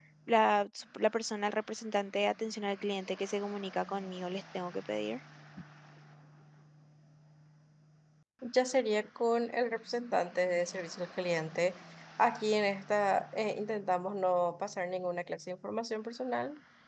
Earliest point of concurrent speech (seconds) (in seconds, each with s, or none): none